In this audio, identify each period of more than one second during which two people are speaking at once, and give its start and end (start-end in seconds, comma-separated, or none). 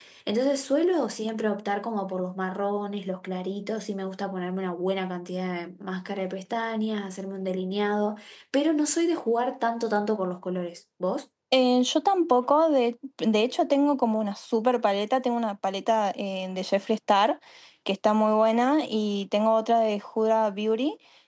none